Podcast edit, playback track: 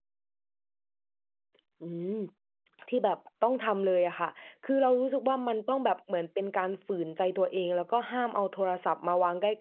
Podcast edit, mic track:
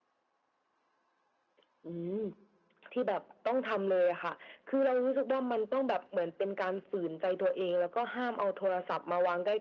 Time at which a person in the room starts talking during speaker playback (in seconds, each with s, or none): none